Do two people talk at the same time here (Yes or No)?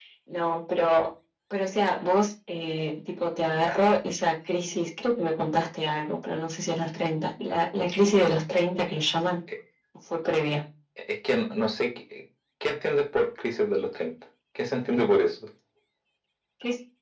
No